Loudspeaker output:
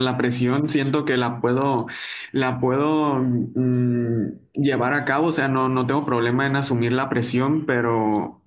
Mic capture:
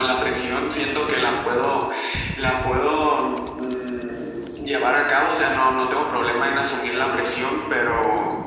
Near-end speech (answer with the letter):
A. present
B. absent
B